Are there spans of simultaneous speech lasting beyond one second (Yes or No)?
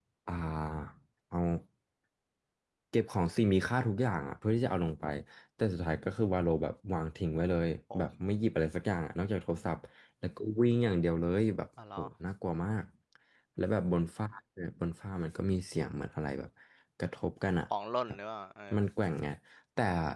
No